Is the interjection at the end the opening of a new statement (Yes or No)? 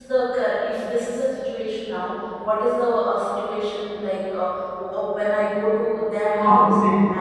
No